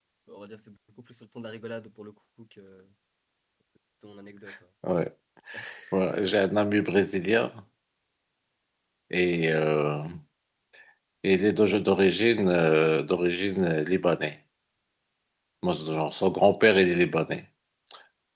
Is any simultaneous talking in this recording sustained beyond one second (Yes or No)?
No